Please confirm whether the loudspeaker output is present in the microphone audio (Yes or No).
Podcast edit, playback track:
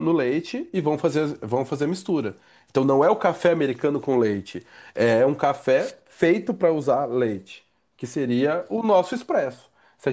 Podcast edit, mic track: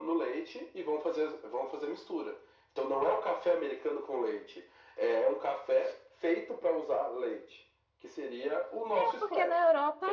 Yes